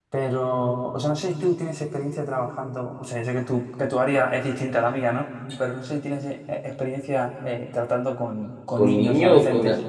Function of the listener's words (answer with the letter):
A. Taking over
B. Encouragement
A